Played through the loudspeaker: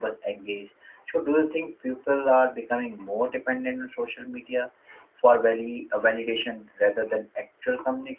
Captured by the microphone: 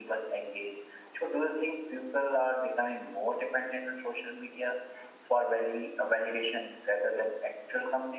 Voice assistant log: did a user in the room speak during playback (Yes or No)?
No